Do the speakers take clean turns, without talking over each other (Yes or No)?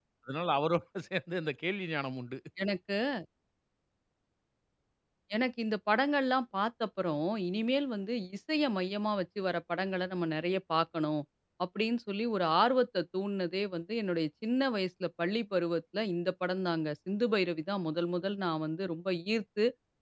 Yes